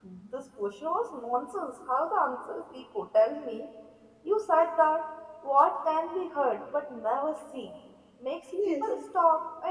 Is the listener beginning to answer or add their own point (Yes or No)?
No